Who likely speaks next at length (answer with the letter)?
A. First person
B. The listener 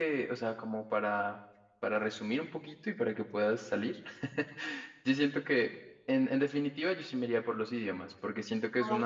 A